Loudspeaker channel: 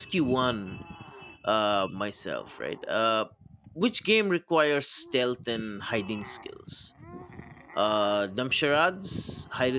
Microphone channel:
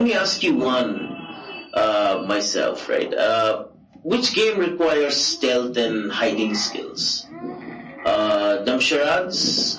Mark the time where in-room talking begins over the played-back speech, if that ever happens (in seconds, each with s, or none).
none